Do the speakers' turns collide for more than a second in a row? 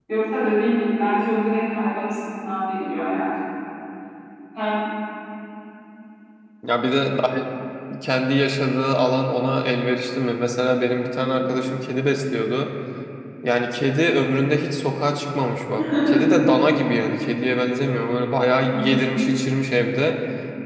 No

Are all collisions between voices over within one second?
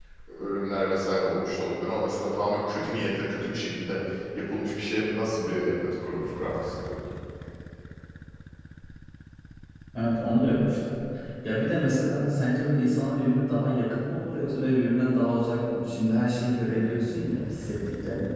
Yes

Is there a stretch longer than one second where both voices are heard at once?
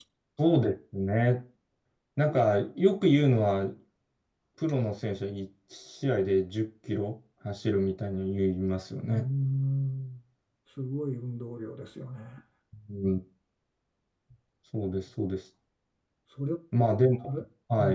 No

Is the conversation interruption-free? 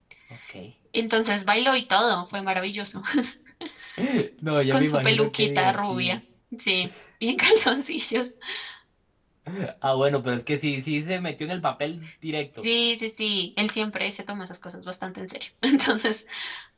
No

